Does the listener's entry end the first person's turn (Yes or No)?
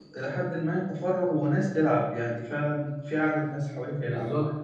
Yes